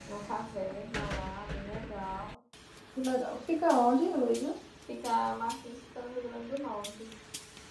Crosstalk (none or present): none